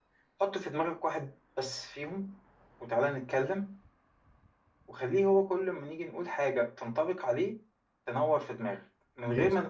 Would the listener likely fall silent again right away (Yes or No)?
Yes